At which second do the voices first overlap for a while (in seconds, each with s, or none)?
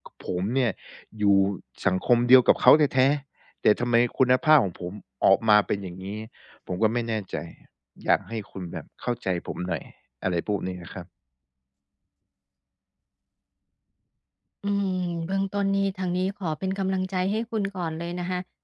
none